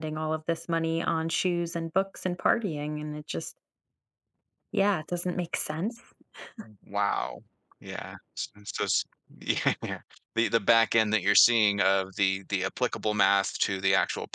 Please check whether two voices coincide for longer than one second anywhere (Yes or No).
No